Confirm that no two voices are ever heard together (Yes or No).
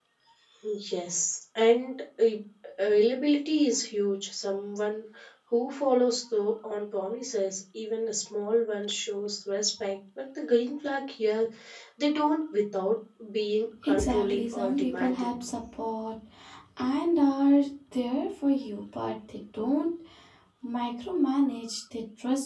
No